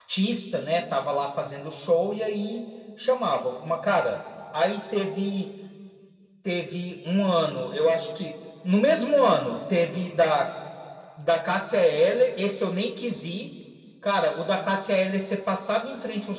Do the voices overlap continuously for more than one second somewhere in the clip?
No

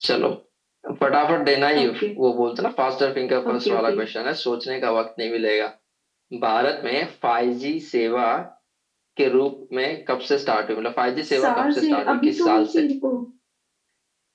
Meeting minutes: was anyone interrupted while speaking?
Yes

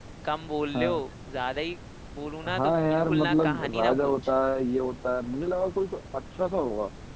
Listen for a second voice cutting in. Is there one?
Yes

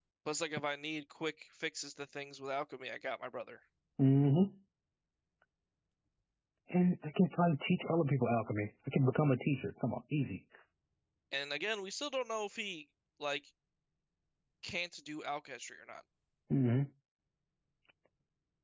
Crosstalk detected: No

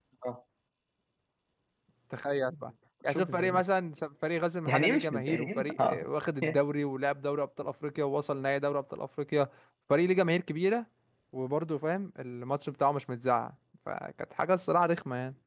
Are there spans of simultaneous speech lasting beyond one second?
Yes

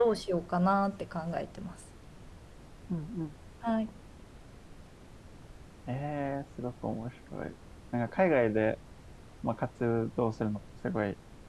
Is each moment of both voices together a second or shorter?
Yes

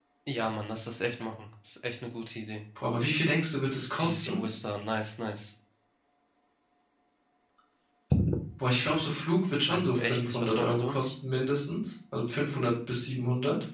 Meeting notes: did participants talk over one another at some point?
Yes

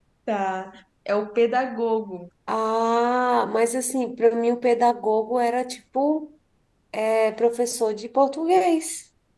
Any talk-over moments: No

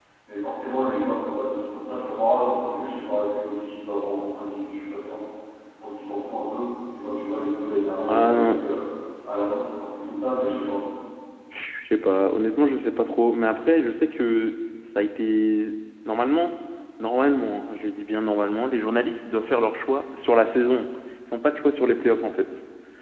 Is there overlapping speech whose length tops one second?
No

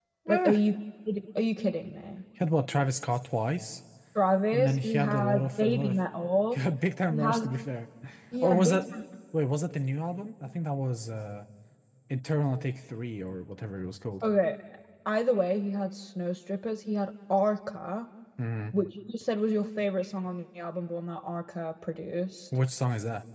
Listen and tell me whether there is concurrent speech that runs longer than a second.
Yes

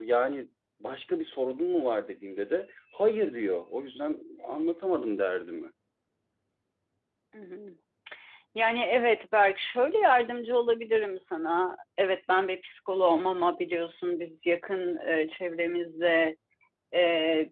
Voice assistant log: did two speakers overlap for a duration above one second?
No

